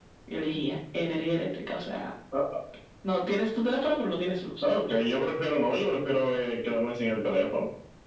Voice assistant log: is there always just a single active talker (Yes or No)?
Yes